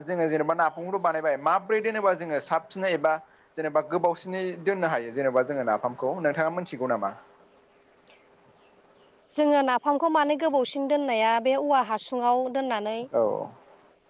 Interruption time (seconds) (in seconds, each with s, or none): none